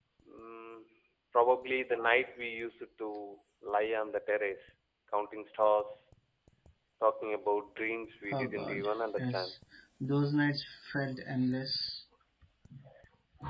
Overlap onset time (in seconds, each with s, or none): 8.3 s